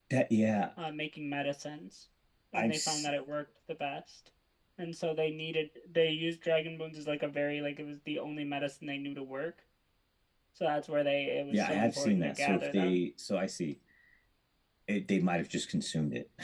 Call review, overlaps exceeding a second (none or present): present